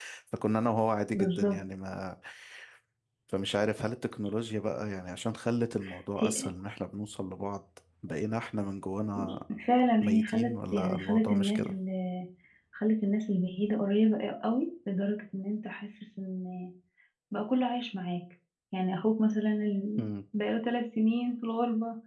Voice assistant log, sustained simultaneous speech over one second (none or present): present